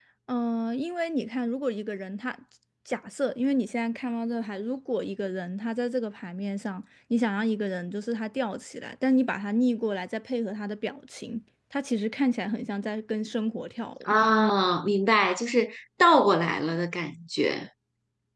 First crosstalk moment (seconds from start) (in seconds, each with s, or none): none